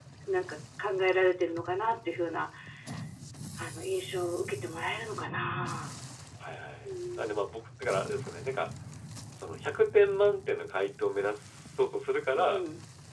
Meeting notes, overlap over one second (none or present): none